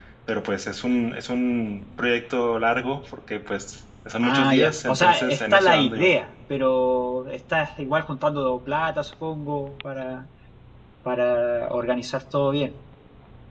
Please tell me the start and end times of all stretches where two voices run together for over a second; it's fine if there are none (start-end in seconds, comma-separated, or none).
4.2-6.1